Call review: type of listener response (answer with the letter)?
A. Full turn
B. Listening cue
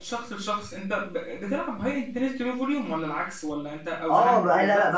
A